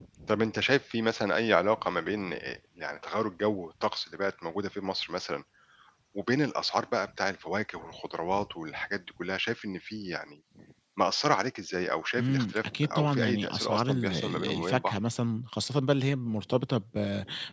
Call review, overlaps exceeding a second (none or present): present